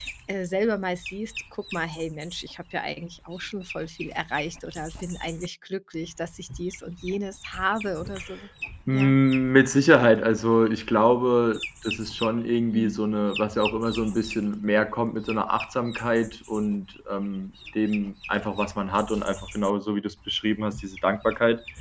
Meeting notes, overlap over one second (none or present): none